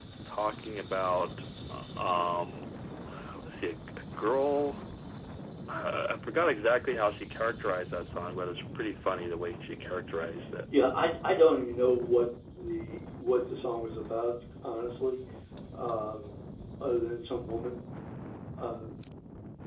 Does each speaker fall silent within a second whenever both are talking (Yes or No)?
Yes